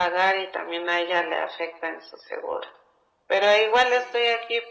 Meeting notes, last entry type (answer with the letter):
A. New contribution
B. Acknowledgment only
B